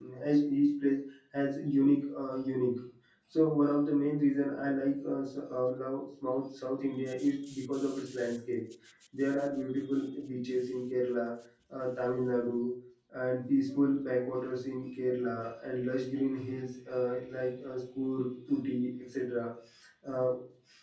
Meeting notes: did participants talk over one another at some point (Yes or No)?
No